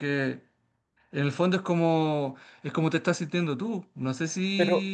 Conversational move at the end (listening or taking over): taking over